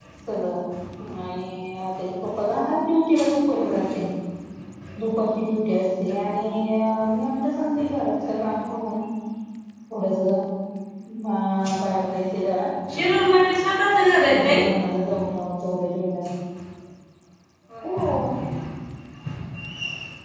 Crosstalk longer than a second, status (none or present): none